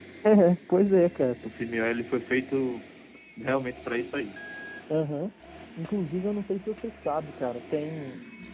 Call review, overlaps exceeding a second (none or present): none